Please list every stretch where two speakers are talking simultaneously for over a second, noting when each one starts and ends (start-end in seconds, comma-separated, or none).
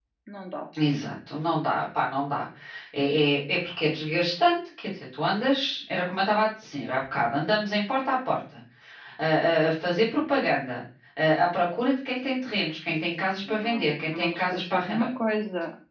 13.5-15.1